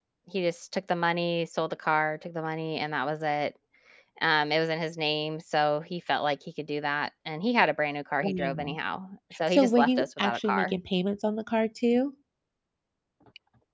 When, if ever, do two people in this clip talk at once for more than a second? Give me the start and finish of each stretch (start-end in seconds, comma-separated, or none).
9.5-10.8